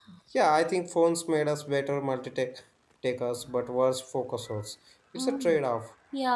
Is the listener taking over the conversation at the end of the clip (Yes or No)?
Yes